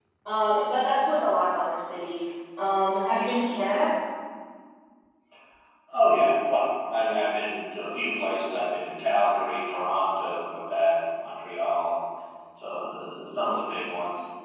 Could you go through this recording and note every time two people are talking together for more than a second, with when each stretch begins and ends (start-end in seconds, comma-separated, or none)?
none